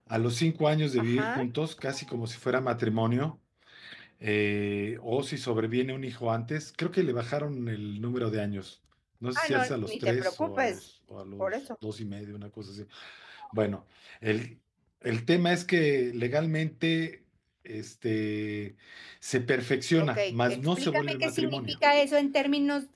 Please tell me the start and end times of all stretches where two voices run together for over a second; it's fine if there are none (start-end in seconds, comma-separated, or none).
9.3-10.8, 20.1-21.8